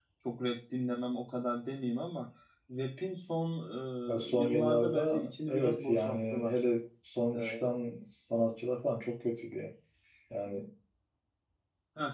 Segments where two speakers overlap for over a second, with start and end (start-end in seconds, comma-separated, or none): 4.3-6.5